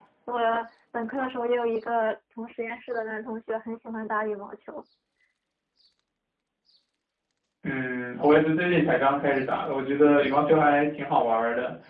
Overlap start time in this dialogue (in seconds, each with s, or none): none